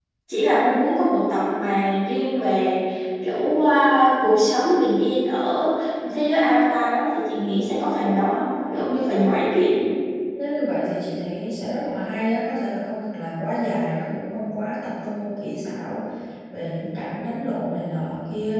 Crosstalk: none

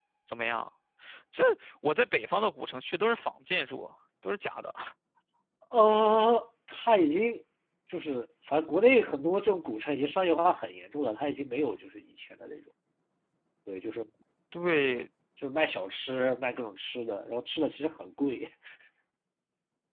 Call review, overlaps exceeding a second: none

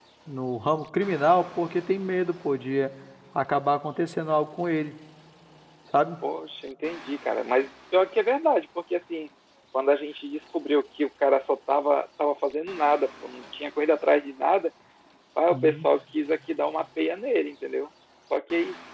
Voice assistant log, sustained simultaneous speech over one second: none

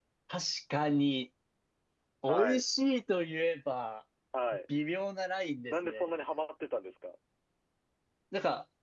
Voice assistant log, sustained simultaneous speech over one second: none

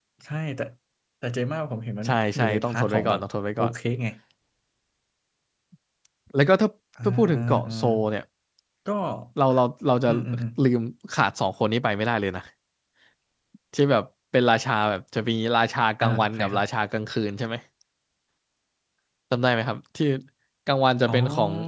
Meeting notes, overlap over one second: present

